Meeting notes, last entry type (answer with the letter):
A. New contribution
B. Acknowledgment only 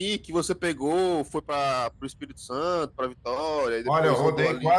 A